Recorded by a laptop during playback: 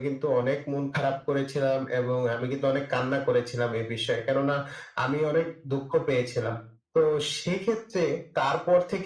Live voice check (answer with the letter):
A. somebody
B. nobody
B